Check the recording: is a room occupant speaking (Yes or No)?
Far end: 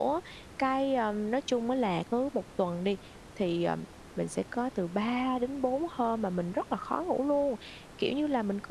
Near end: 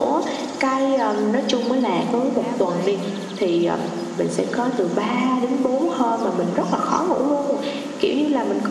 Yes